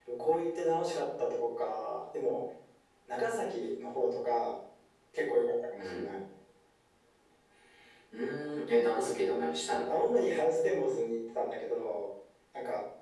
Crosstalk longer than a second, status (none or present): none